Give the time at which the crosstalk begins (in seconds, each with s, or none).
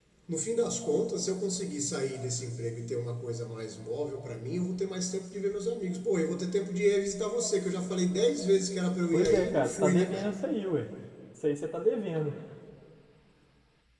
9.1 s